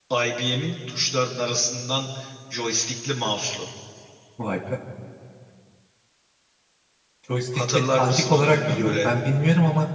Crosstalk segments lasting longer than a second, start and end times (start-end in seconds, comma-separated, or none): 7.7-9.1